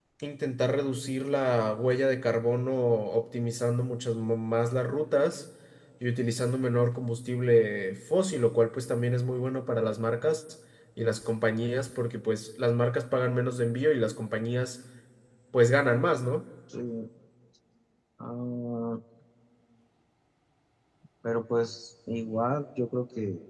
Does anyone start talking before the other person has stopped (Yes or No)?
No